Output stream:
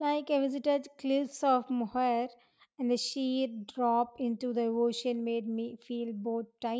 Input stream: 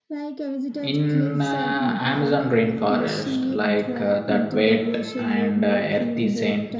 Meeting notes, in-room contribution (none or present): present